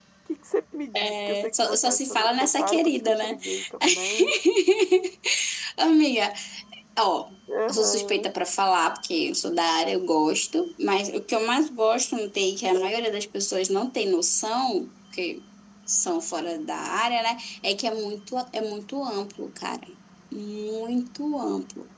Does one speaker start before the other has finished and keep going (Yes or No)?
Yes